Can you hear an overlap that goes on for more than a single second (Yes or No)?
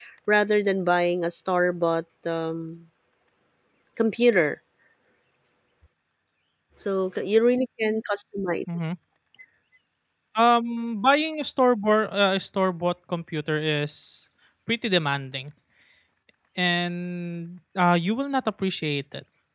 No